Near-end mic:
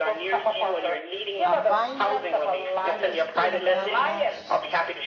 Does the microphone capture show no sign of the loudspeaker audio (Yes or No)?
No